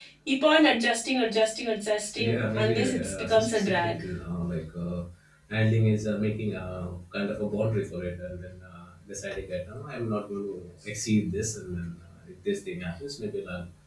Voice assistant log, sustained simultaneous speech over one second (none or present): present